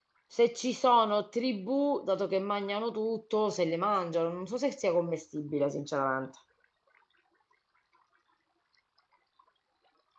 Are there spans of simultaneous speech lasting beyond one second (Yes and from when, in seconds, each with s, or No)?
No